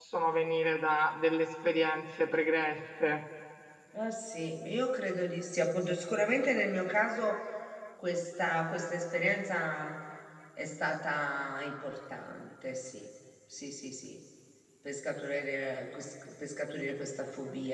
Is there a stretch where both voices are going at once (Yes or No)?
No